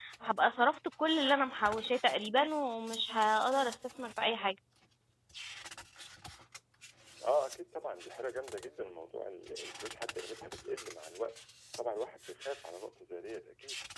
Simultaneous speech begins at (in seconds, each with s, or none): none